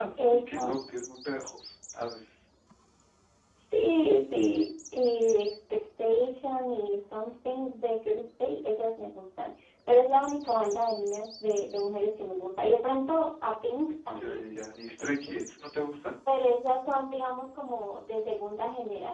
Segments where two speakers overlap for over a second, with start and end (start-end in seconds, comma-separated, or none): none